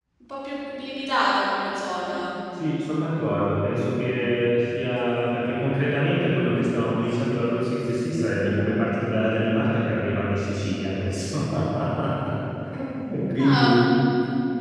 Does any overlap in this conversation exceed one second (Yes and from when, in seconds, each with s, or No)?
No